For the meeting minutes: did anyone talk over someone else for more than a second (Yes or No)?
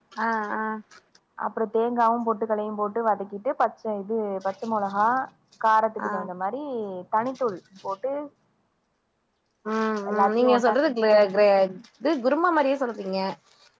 Yes